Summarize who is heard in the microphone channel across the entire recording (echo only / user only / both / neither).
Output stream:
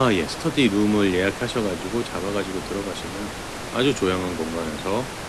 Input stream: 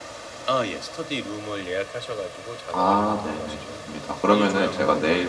both